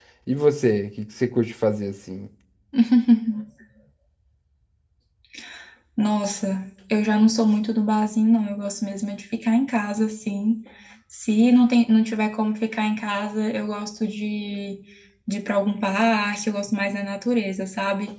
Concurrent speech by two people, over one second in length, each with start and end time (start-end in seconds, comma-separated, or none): none